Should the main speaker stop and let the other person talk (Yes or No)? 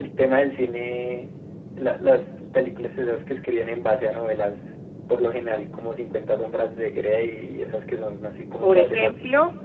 Yes